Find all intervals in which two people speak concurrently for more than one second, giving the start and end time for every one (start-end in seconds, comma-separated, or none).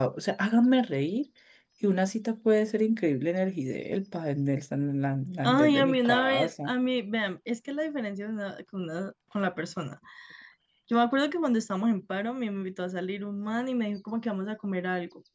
5.4-6.7